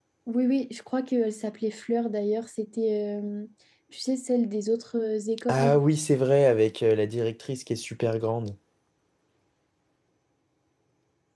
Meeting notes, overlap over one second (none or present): none